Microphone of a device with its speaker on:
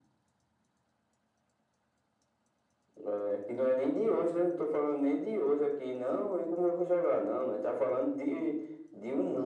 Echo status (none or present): present